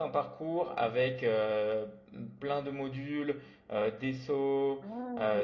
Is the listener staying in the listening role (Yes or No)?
Yes